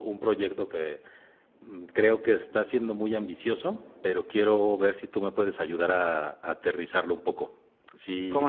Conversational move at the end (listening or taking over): taking over